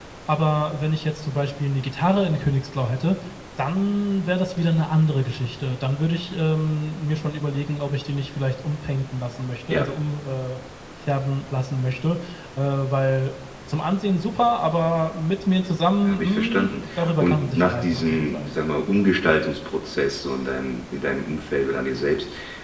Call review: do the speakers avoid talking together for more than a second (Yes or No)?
No